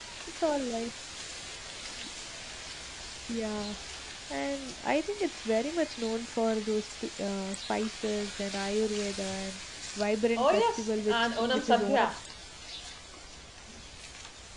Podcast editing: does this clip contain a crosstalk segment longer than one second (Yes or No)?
Yes